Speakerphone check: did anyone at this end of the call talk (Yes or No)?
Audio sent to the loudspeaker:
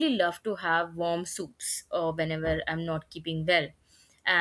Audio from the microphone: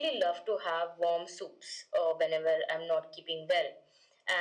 No